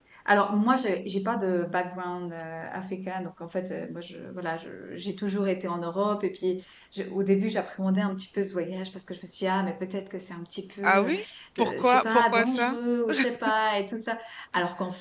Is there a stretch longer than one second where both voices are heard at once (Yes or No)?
Yes